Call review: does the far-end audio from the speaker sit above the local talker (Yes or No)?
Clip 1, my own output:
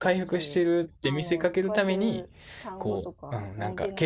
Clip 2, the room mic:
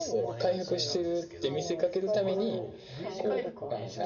Yes